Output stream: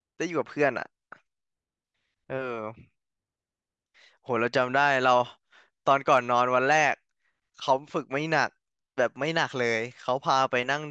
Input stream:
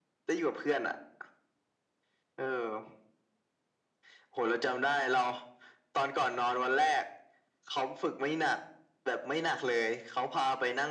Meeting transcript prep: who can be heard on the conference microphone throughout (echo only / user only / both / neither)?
echo only